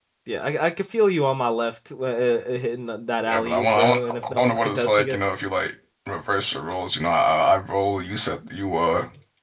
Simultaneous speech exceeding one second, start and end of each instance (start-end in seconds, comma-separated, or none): 3.3-5.2